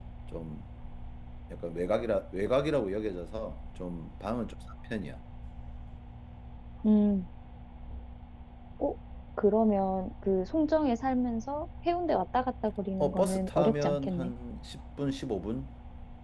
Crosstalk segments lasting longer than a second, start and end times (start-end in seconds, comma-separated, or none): 13.0-14.3